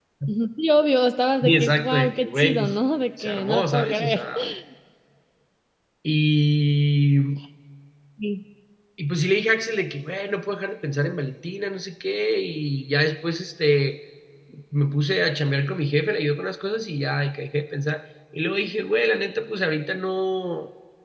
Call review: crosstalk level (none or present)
present